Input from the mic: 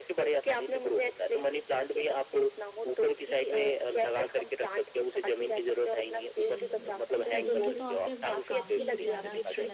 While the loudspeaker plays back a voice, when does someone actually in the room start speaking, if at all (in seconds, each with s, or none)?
6.4 s